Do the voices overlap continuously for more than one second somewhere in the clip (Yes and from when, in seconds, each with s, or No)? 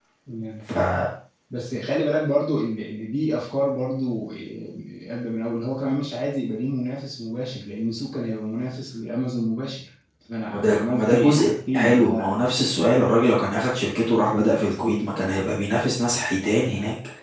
Yes, from 10.5 s